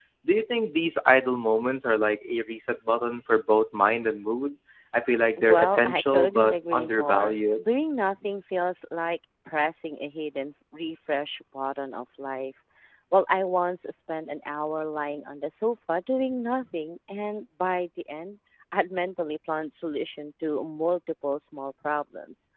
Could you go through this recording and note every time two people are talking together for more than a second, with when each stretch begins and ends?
5.4-7.7

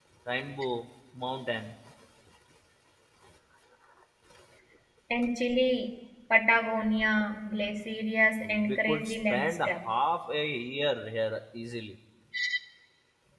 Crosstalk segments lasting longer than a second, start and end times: 8.4-9.8

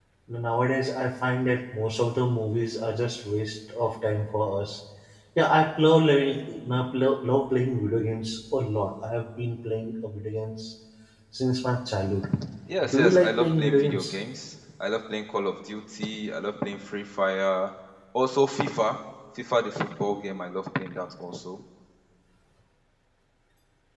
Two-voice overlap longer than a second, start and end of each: 12.9-14.2

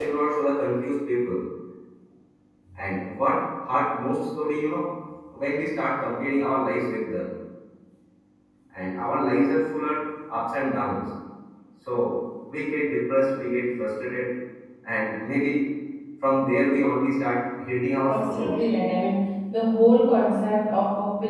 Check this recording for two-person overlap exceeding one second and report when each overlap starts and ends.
none

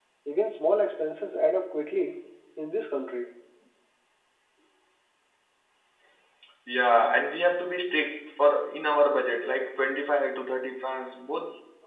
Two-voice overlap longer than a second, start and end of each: none

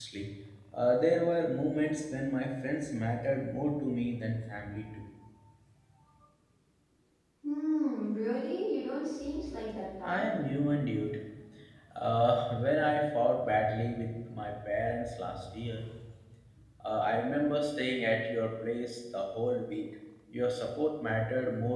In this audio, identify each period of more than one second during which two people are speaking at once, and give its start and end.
none

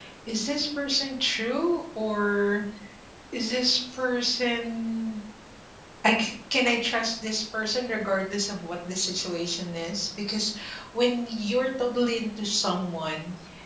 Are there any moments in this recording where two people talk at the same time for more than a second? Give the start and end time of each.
none

